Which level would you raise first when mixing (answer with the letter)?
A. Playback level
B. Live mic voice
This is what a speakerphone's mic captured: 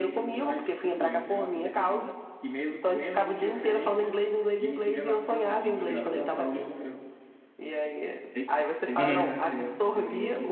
A